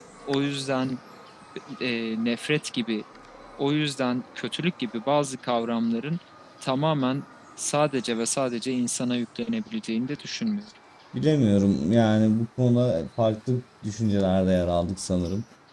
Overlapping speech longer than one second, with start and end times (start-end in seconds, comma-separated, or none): none